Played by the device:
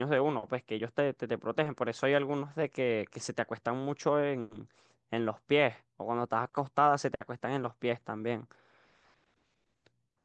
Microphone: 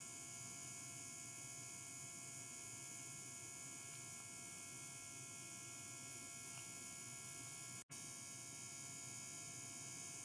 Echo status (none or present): none